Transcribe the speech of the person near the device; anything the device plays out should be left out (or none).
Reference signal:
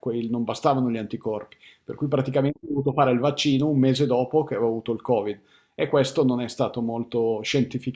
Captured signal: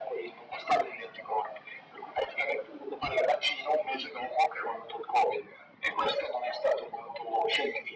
none